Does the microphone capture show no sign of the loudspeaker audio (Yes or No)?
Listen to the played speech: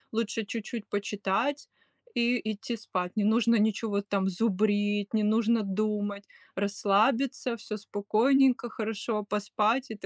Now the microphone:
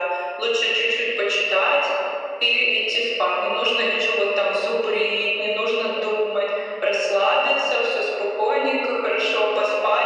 No